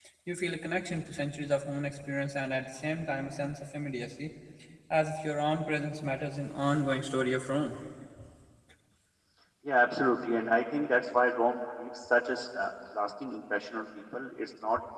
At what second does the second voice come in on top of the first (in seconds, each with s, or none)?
none